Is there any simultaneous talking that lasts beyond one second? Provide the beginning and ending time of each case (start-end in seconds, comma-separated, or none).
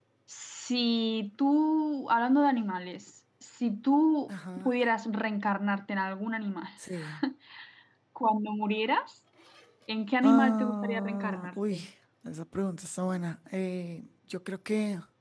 10.2-11.8